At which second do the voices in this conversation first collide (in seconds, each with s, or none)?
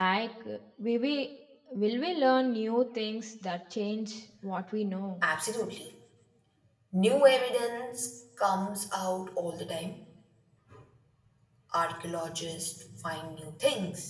none